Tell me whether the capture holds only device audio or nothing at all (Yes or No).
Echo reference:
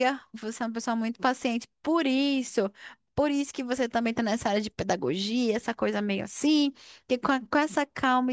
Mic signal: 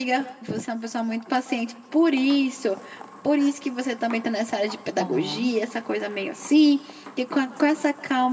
No